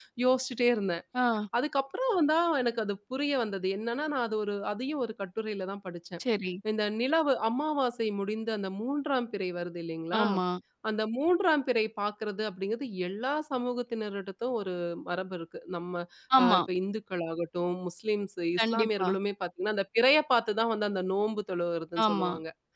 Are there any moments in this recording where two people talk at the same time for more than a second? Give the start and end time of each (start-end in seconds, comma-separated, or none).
none